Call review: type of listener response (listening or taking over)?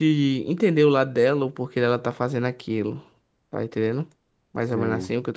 taking over